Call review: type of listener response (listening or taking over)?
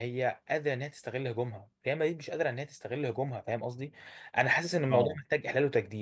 listening